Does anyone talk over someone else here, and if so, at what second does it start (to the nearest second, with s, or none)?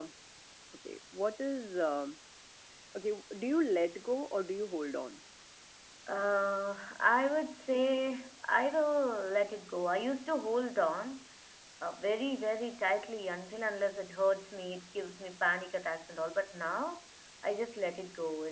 none